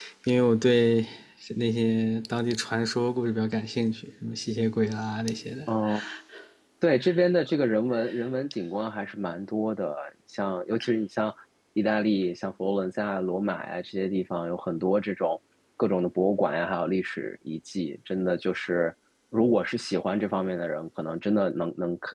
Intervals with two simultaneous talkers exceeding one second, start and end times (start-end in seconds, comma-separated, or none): none